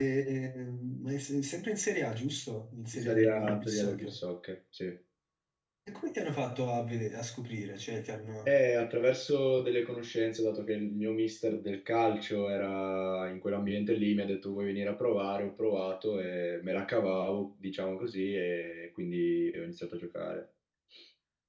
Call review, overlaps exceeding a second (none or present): present